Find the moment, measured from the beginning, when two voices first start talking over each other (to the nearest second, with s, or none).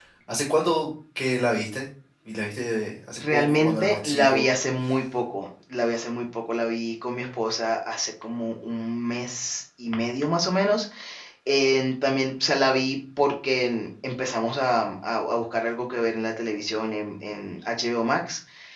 3 s